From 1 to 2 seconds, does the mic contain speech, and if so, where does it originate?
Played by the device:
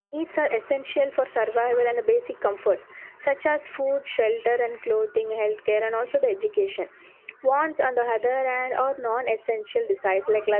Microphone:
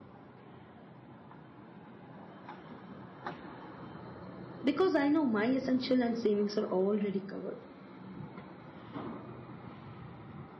neither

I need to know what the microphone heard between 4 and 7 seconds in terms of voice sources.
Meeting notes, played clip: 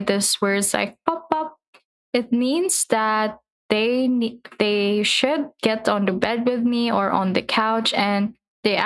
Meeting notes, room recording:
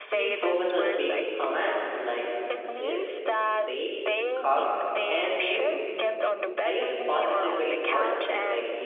both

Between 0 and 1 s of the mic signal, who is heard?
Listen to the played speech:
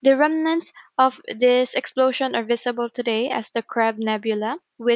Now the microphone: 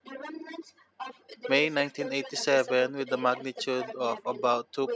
echo only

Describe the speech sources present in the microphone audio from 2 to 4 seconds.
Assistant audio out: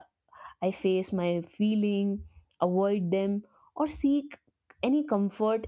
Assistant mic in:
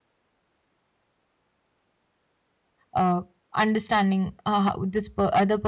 user only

